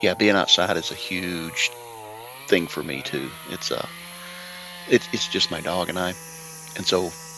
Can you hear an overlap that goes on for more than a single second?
No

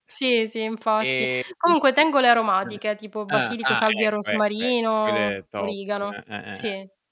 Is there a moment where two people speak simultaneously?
Yes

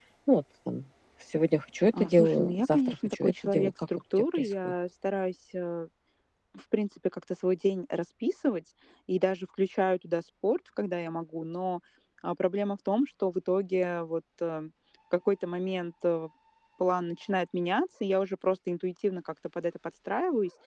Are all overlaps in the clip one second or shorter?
No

